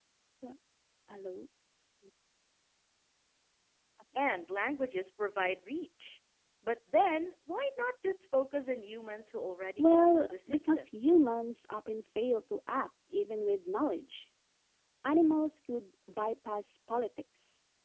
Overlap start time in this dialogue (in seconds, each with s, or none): 9.8 s